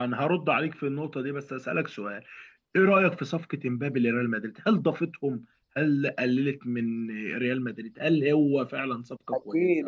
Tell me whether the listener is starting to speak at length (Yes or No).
Yes